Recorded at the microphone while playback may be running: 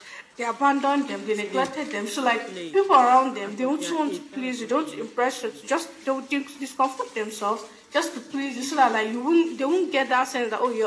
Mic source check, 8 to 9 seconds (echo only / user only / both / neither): echo only